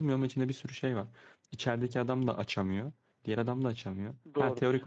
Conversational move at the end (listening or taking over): listening